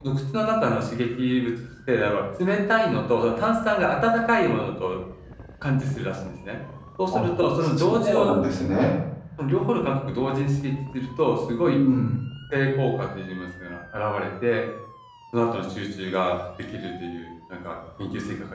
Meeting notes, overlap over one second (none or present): none